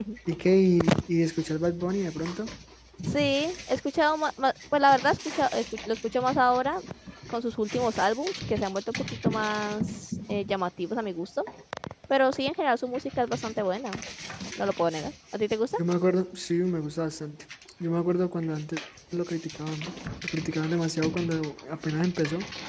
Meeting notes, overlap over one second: none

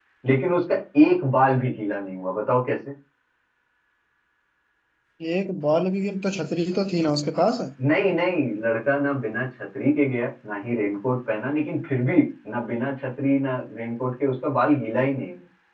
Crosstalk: none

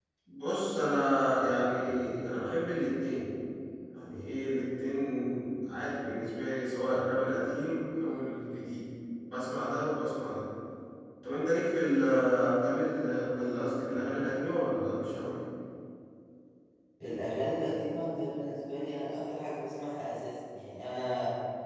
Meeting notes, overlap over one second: none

